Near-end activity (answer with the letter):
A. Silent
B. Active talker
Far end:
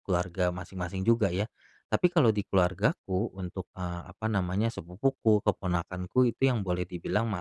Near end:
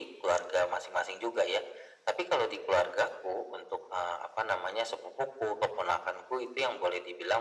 A